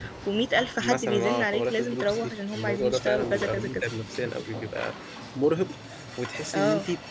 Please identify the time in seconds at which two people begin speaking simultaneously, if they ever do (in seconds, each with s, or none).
0.8 s